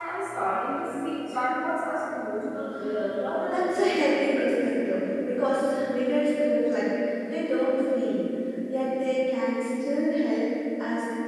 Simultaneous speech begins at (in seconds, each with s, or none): 3.5 s